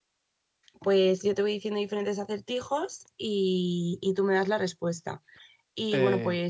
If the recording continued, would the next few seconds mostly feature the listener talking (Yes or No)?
No